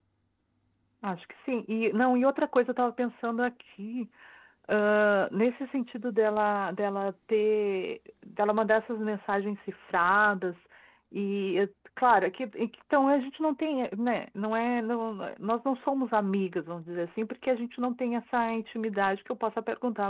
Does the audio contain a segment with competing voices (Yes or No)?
No